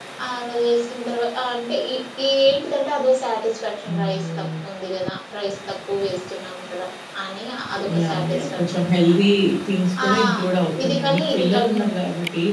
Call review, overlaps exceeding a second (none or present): present